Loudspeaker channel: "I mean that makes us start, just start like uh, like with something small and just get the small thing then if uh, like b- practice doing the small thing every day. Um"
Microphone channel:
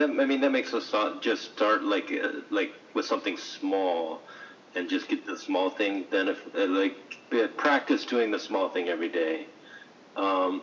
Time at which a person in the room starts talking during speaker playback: none

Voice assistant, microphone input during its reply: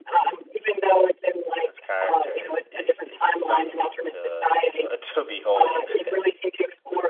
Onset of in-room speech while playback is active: 1.6 s

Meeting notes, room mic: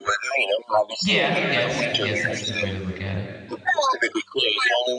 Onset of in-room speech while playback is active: 1.0 s

